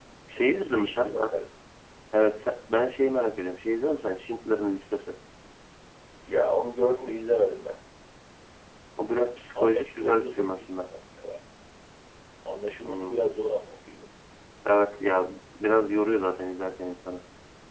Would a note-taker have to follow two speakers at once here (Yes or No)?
Yes